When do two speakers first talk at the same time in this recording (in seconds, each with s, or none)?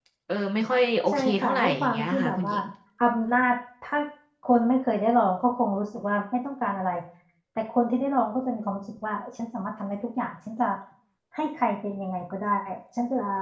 1.1 s